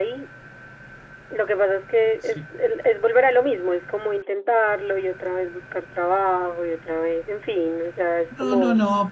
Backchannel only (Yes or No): No